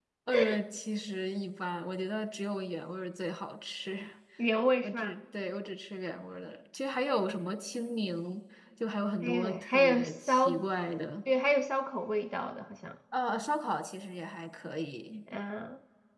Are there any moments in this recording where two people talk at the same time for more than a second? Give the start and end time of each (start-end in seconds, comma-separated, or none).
9.2-10.6